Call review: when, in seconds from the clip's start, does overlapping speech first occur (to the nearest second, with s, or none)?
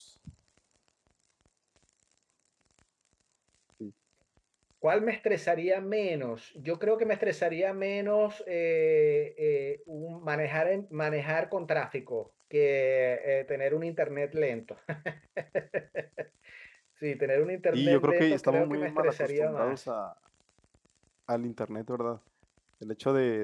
18 s